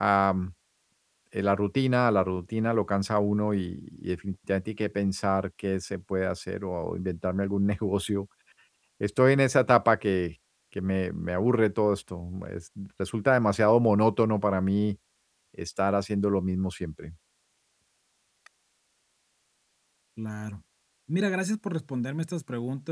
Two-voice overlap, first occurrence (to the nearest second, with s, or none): none